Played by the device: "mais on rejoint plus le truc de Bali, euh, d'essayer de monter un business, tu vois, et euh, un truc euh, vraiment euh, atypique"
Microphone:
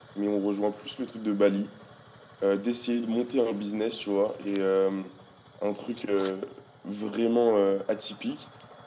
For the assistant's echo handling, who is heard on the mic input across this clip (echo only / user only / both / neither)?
echo only